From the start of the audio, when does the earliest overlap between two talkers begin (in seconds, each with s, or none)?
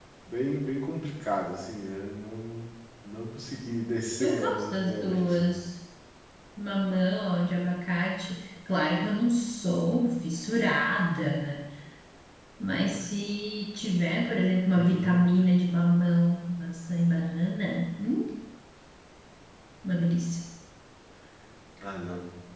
4.2 s